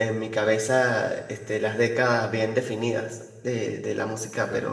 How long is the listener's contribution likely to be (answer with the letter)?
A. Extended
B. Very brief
B